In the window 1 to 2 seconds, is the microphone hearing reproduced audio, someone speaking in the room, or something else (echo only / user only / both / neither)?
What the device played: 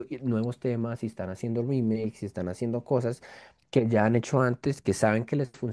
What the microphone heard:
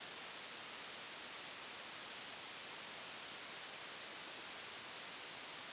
neither